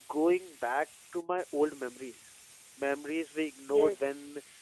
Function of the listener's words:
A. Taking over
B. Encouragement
B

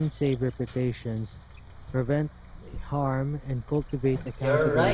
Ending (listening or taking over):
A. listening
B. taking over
B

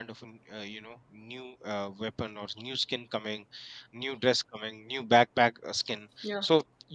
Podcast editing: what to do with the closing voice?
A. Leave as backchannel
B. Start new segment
A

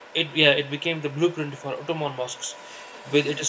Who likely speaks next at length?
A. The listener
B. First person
B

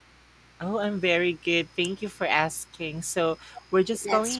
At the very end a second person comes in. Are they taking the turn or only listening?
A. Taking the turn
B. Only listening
B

